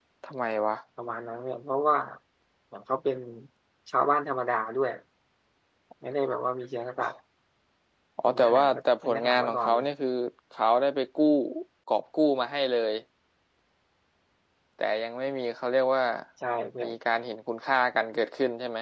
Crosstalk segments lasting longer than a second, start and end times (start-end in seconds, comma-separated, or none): 8.2-9.9